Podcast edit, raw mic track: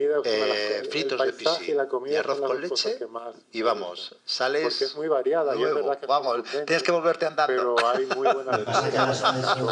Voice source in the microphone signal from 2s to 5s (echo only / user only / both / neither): echo only